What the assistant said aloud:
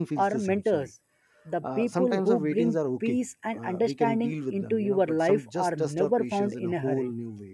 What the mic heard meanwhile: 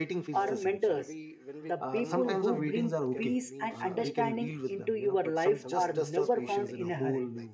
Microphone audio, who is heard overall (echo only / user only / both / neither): both